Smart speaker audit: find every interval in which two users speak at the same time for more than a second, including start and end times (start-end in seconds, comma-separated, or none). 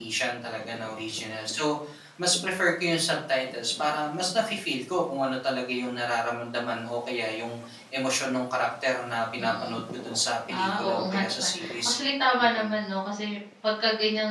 10.5-11.9